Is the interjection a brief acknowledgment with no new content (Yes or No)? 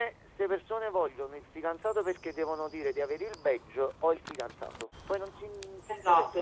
No